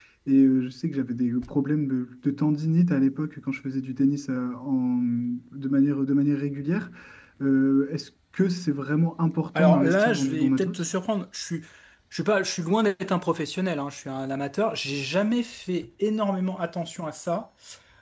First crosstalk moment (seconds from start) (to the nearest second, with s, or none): 10 s